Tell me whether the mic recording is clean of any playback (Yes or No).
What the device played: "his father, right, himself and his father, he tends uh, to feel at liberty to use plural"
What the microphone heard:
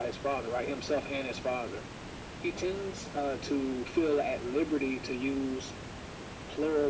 No